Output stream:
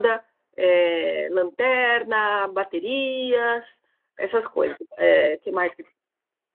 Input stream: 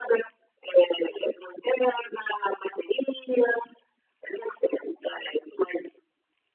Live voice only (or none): none